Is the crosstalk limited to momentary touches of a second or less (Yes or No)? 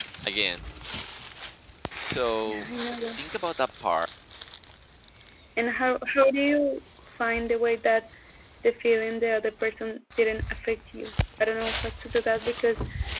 Yes